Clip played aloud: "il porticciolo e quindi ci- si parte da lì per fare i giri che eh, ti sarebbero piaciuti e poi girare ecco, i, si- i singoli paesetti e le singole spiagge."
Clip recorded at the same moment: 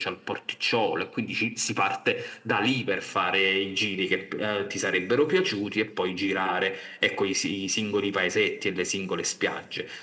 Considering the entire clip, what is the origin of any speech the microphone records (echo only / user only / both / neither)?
echo only